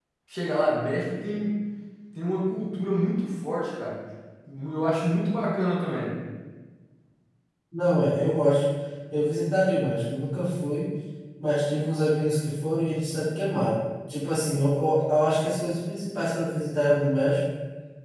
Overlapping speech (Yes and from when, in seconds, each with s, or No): No